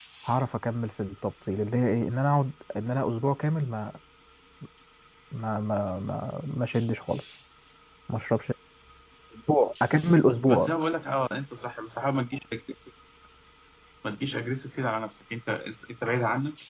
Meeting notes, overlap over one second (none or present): none